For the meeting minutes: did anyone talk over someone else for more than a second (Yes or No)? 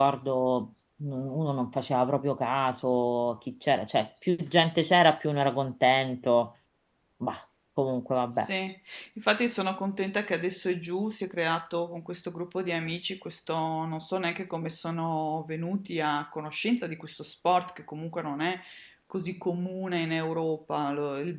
No